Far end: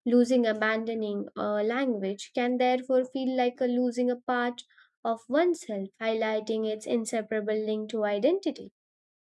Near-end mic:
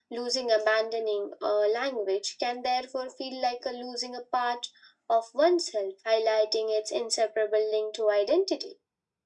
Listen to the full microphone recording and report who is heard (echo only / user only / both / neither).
echo only